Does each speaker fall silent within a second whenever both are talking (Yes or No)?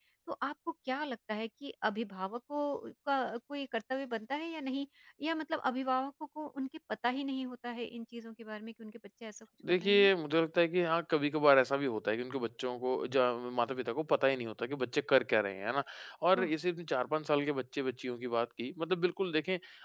Yes